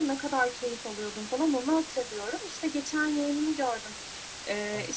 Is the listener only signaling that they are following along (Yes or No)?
Yes